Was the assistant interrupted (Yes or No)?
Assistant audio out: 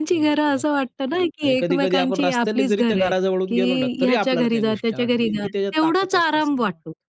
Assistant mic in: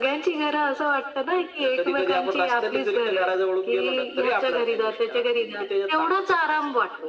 No